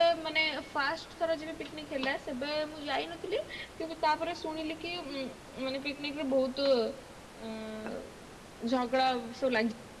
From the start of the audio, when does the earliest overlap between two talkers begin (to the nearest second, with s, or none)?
none